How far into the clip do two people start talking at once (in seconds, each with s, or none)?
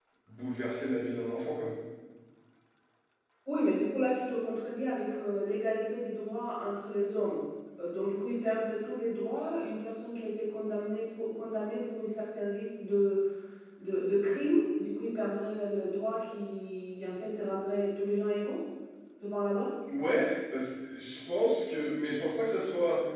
none